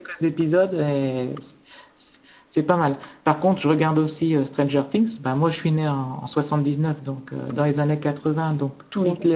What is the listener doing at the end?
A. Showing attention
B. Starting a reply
A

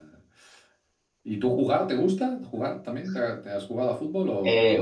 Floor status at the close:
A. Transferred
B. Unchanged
A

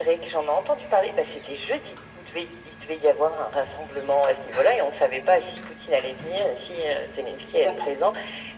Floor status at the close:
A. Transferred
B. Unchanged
B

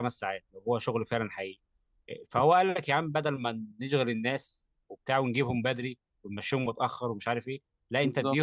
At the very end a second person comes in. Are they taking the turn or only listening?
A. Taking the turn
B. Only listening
B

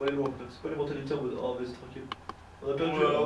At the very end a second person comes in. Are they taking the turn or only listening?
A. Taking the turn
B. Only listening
A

